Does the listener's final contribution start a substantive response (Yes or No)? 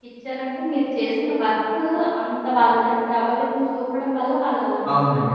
Yes